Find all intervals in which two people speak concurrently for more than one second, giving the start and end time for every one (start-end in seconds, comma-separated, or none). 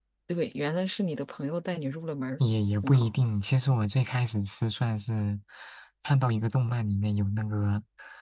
none